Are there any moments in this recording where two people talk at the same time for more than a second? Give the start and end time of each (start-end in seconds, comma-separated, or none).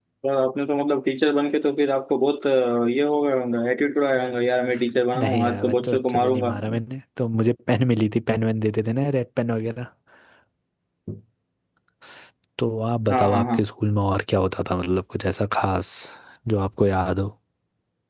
5.2-6.6